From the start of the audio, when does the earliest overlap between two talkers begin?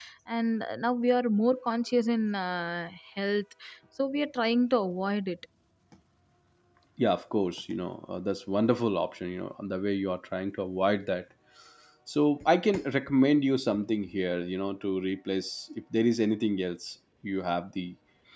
none

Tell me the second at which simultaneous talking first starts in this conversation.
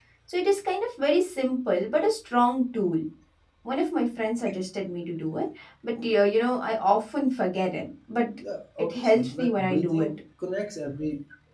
8.8 s

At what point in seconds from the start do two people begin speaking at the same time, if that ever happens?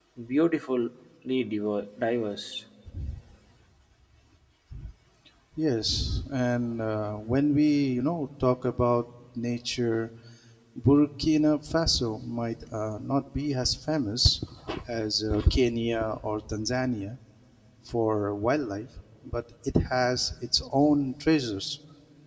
none

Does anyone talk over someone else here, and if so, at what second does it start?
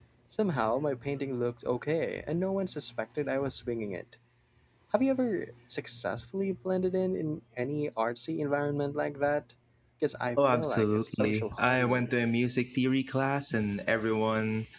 10.4 s

